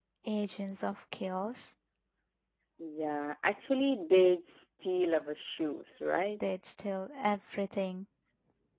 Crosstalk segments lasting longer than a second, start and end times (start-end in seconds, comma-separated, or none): none